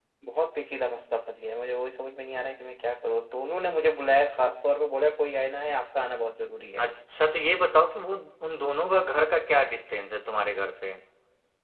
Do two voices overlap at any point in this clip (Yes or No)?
No